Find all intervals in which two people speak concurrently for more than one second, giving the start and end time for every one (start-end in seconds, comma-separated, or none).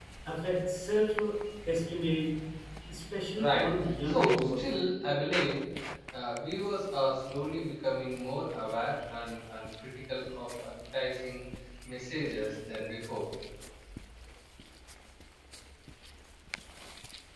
3.4-4.7